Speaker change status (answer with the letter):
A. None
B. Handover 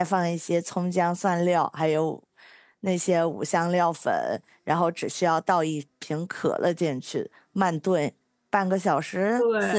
A